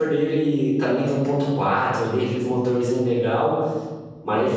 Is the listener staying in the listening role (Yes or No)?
Yes